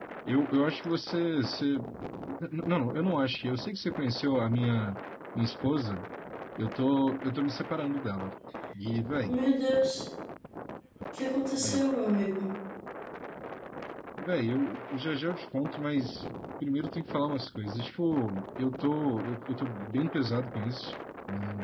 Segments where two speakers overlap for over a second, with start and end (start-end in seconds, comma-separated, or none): none